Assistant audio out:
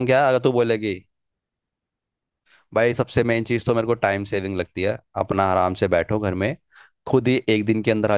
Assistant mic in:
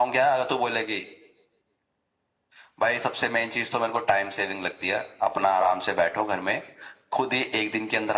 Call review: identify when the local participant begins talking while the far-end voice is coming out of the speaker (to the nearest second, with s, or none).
none